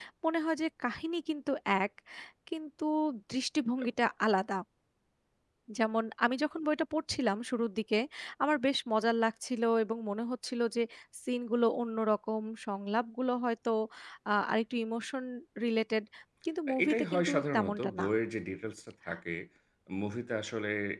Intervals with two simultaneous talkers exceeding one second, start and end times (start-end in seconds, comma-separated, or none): 16.8-18.1